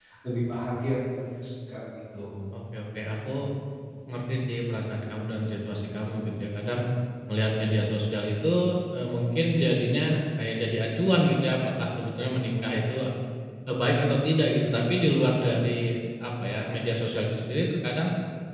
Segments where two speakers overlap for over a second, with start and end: none

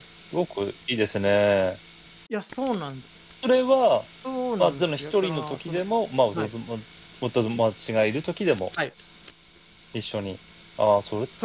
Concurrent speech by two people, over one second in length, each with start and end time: 4.6-5.8

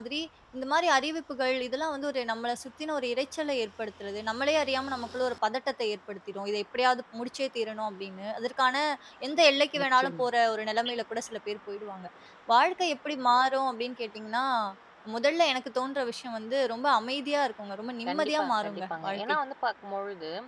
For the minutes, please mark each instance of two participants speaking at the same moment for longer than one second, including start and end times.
18.1-19.4

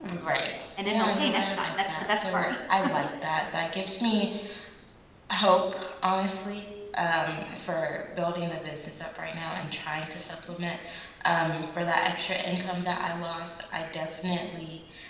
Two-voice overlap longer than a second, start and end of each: 0.8-2.5

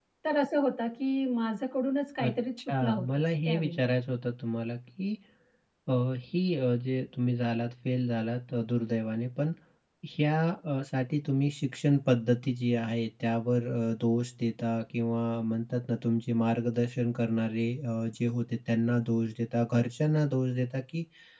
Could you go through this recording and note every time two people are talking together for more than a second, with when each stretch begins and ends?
2.2-3.8

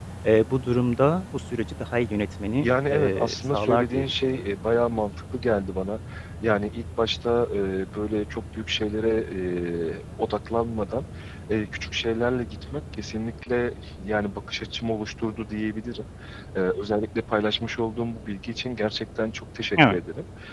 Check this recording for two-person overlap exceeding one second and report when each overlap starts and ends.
2.6-4.4

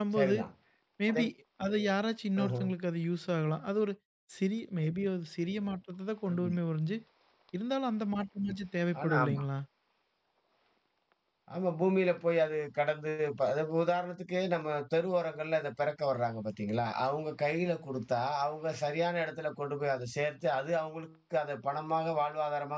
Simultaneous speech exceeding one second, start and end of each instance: none

